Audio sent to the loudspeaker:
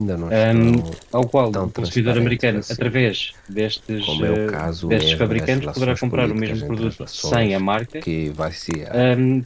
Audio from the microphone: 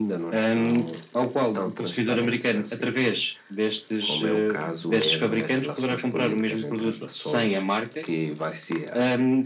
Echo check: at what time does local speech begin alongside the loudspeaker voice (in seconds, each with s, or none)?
none